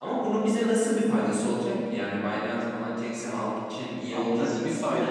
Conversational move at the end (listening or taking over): taking over